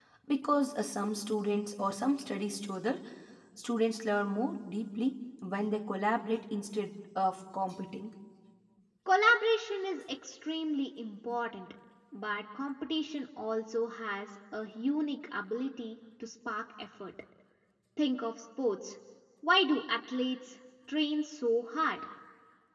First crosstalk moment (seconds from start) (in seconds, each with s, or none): none